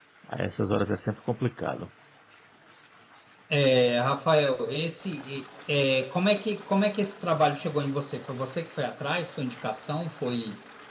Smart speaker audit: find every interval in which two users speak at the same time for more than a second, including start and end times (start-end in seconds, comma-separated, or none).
none